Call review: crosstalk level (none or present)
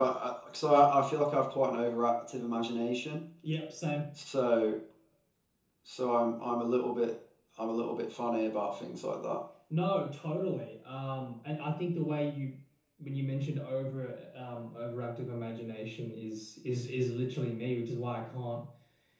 none